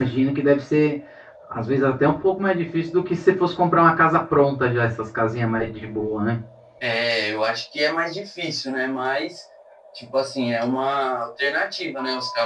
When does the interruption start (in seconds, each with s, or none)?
none